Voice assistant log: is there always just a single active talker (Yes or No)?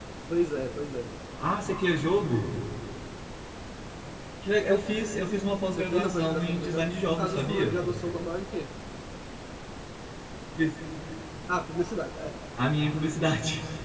No